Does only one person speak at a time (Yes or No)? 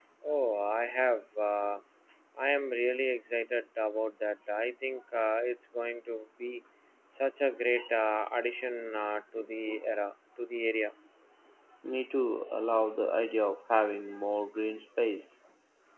Yes